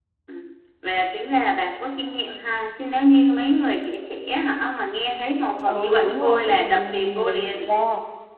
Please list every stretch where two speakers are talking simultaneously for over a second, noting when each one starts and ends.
5.7-7.7

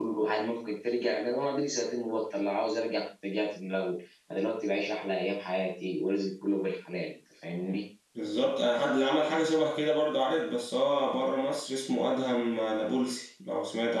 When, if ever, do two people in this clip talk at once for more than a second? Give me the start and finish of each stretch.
none

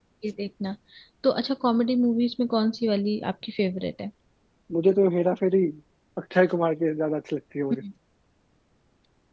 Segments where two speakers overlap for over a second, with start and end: none

